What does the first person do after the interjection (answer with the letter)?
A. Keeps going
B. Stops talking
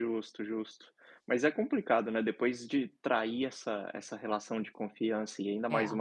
A